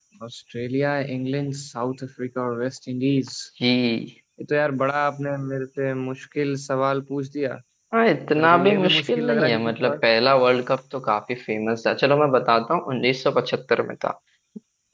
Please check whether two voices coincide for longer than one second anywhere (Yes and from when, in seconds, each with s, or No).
Yes, from 8.4 s